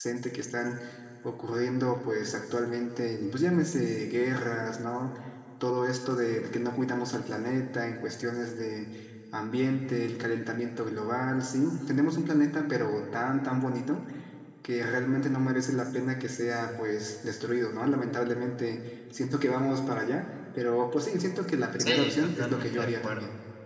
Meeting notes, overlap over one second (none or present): present